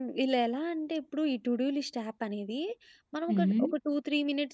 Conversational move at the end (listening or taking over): listening